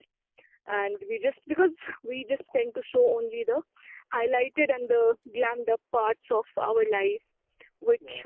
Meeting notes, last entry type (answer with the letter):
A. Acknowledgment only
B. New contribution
A